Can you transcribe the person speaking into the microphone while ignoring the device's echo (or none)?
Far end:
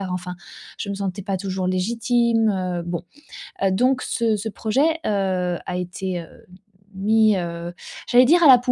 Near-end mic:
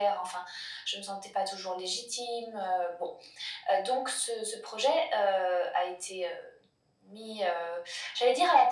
none